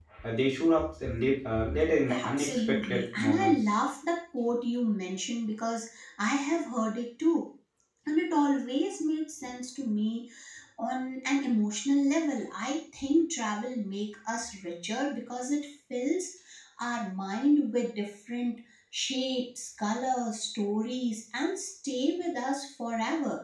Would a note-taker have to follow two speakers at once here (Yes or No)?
Yes